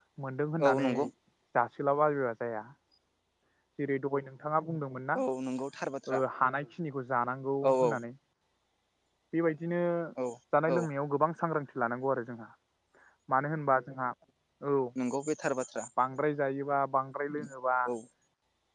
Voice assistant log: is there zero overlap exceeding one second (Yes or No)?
Yes